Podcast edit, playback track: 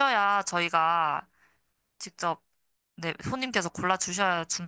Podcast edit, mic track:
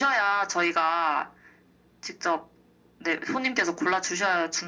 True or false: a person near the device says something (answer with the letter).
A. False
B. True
A